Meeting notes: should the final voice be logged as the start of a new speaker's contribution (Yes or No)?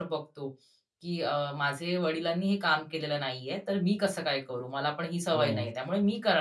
No